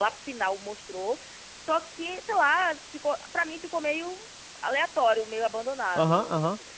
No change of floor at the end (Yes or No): No